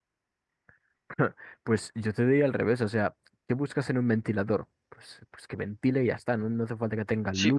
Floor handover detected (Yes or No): Yes